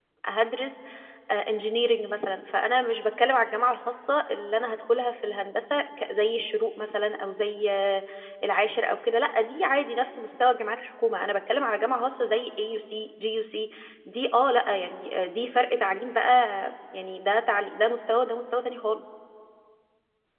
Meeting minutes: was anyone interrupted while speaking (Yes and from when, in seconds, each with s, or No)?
No